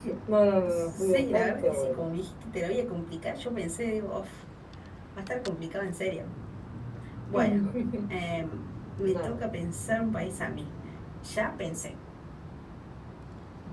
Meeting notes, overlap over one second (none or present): present